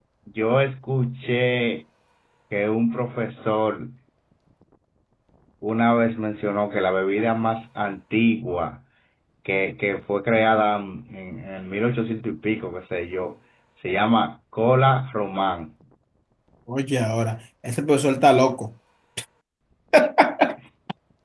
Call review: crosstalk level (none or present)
none